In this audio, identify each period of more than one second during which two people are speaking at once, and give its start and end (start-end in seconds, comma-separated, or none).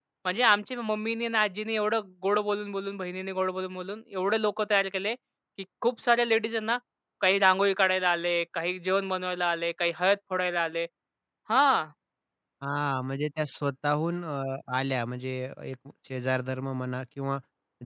none